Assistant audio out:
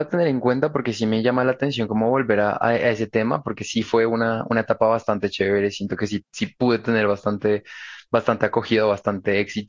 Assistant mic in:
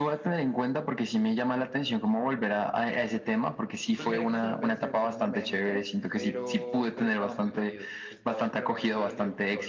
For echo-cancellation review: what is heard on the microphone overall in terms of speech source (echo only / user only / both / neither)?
both